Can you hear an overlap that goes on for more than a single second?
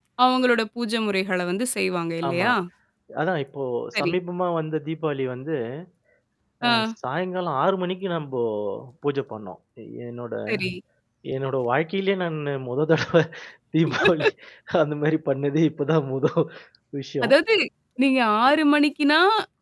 No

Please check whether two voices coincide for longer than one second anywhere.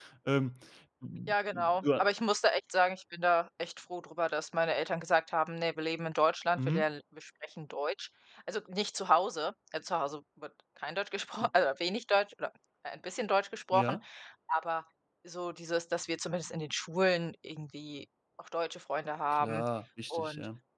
No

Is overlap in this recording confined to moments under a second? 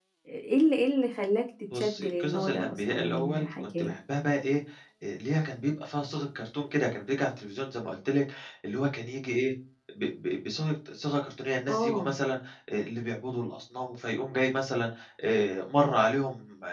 No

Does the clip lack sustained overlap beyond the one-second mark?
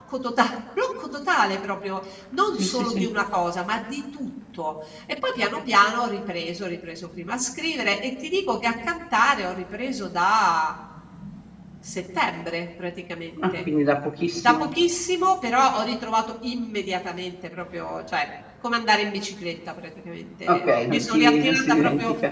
No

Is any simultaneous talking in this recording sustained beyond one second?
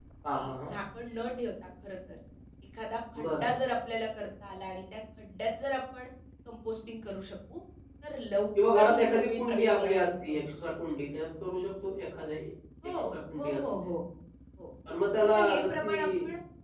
Yes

